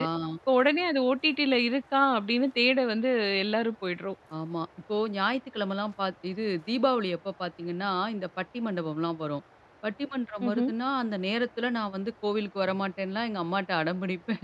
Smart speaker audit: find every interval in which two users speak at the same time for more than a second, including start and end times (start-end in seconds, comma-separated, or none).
none